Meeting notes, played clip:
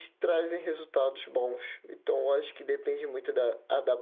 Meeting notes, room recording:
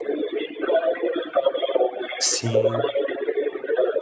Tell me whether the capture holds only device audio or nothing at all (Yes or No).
No